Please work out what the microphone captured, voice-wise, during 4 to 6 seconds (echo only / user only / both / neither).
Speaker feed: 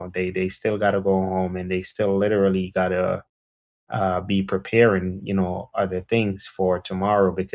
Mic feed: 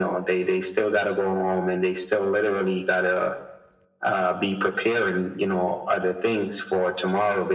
echo only